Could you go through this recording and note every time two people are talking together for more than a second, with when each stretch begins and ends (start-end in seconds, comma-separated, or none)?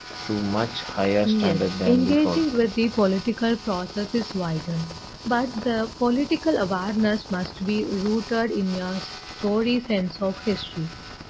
1.2-2.4